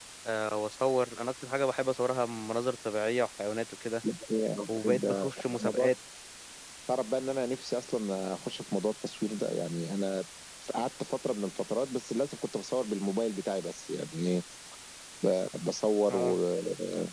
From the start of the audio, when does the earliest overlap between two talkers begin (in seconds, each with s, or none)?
4.7 s